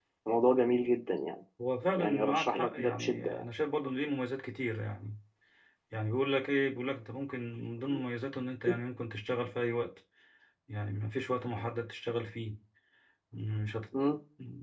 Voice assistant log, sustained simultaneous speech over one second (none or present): present